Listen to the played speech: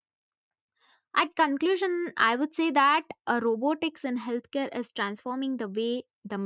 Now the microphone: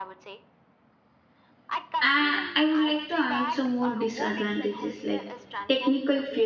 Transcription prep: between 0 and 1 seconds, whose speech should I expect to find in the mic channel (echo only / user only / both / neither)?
echo only